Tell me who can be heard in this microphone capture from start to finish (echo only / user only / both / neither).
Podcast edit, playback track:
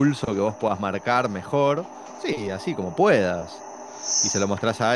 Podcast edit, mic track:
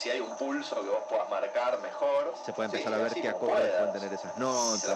both